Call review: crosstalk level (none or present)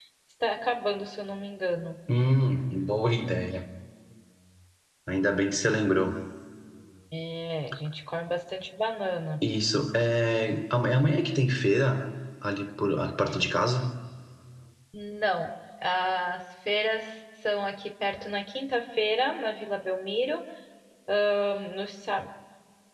none